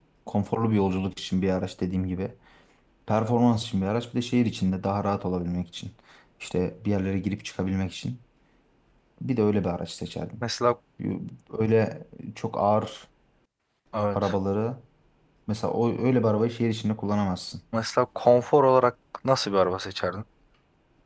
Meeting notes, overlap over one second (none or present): none